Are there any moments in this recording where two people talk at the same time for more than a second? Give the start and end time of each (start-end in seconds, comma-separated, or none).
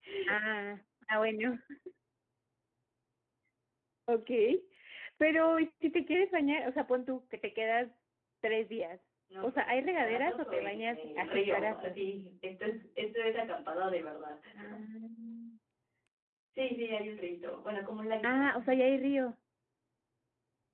9.4-11.9